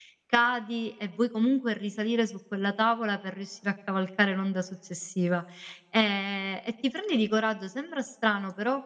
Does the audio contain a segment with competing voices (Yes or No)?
No